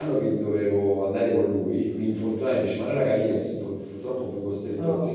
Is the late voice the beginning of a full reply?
No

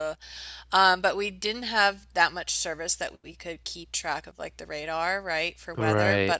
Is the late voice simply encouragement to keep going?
Yes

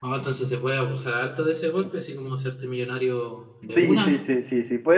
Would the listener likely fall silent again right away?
No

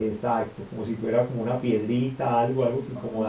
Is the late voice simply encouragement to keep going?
Yes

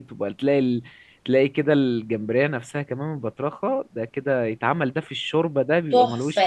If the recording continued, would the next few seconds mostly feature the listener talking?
Yes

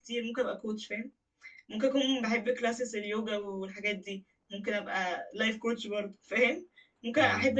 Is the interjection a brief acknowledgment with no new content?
Yes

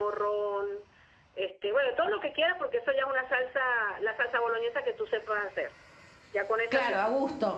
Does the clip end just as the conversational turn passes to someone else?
Yes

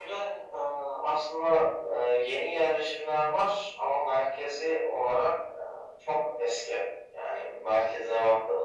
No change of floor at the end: Yes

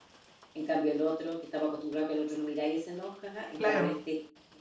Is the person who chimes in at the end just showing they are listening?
Yes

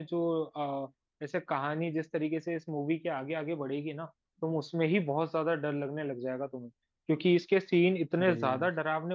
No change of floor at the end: Yes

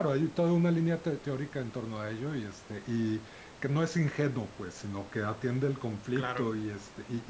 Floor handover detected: No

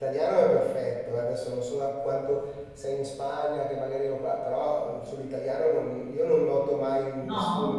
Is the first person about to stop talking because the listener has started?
No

